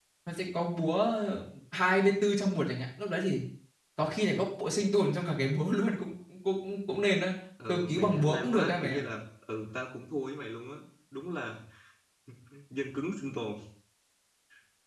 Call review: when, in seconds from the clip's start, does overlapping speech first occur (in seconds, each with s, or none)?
7.6 s